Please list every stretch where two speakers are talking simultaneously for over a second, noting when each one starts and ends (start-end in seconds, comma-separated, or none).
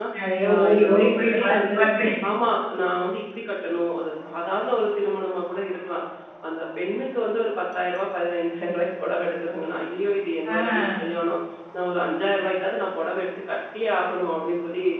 0.5-1.8